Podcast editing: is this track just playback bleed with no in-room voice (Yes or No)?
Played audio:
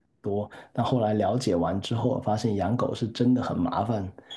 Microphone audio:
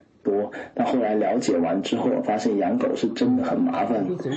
No